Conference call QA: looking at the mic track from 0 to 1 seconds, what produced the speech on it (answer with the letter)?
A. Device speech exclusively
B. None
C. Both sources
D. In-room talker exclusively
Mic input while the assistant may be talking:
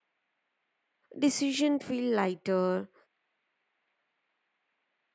B